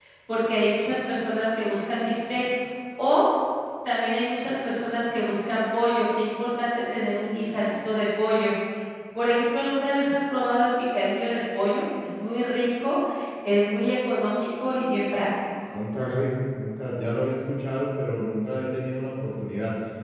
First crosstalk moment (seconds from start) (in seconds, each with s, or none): none